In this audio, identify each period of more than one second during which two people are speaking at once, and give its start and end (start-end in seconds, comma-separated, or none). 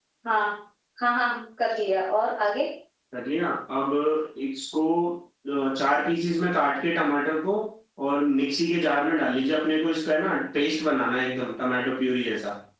none